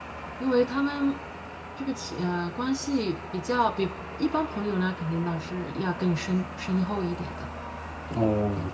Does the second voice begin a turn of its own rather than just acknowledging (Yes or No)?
Yes